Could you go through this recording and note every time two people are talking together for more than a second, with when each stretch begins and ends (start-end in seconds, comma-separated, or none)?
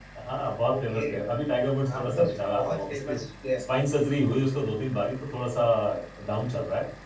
1.9-3.2